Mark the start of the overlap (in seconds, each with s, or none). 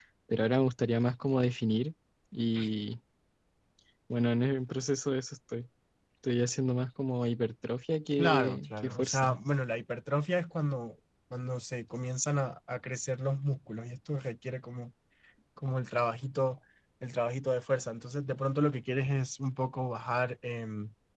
8.2 s